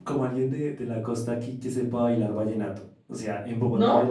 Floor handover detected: No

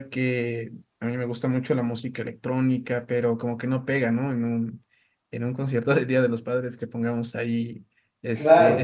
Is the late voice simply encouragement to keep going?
No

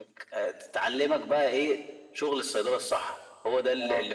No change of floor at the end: Yes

